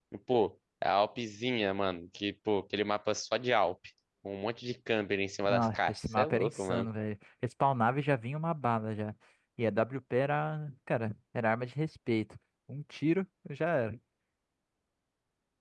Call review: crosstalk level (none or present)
present